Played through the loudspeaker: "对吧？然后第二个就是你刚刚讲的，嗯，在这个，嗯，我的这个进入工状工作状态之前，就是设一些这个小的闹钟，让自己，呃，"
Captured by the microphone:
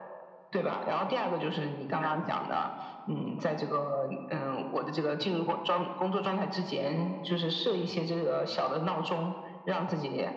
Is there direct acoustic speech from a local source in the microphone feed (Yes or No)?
No